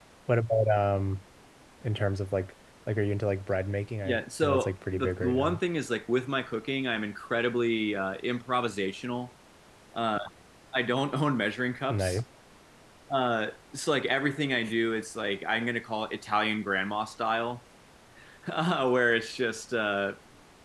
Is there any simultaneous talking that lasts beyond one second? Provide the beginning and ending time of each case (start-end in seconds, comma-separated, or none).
4.0-5.6